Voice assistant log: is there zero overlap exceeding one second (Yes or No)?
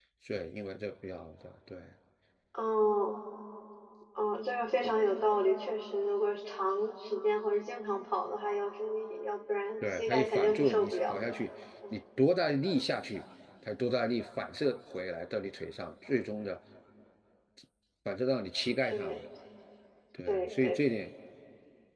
No